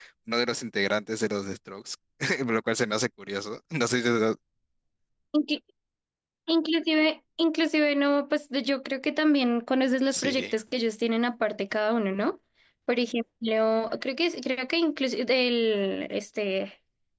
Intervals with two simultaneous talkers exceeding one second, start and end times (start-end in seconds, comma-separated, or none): none